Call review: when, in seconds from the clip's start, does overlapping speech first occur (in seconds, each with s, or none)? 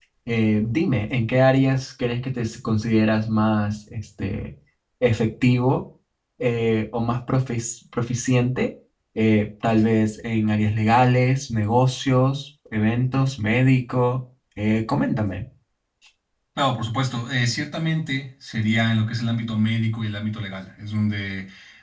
none